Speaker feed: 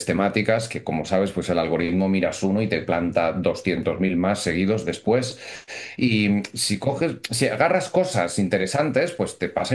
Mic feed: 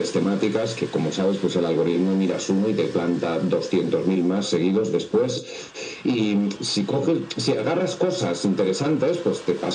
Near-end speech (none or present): none